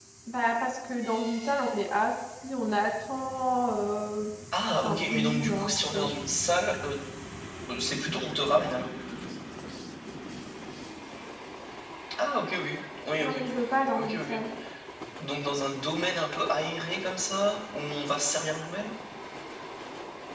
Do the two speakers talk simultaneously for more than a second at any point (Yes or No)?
Yes